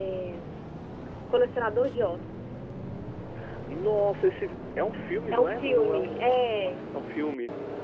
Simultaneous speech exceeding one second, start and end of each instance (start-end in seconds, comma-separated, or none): 5.3-6.8